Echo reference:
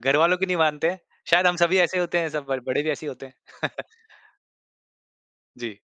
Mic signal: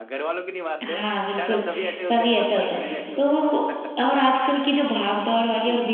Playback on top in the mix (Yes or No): No